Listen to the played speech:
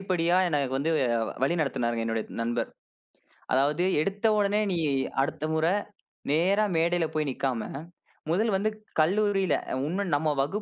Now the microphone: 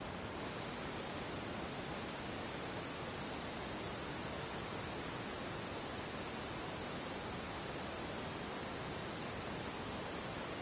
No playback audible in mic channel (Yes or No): Yes